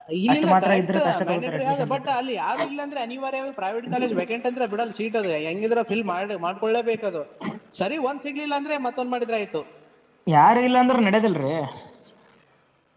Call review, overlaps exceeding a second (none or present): present